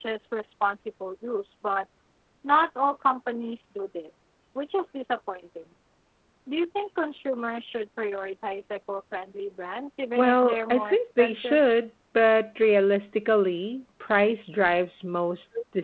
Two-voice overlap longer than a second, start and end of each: 10.2-11.6

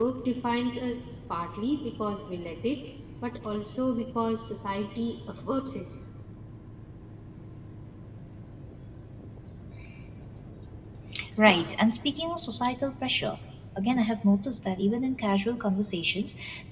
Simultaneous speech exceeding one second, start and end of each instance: none

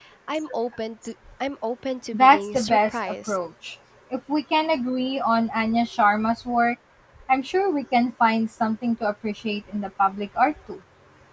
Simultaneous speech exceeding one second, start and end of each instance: 2.1-3.4

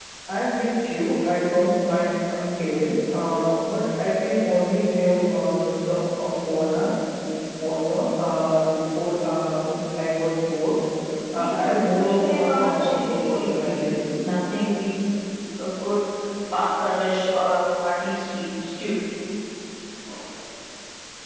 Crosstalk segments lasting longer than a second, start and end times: 11.4-13.8

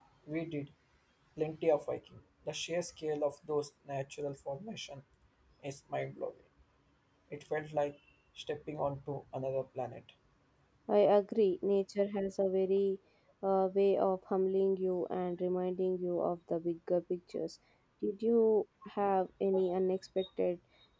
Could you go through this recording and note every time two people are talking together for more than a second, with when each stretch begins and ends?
none

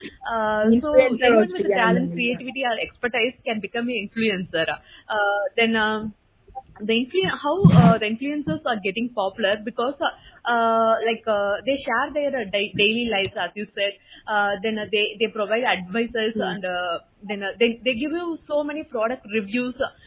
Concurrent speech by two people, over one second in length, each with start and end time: 0.6-2.4

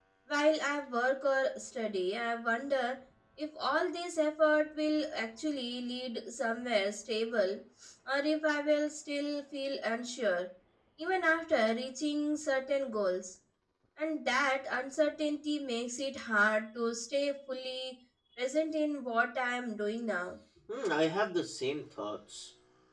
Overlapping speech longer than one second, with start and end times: none

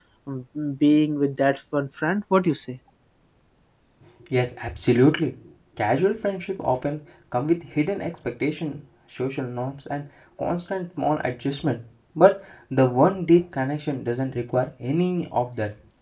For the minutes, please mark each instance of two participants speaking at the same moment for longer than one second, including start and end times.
none

